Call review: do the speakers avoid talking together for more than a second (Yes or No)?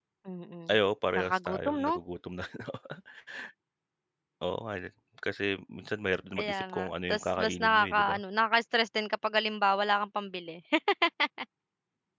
No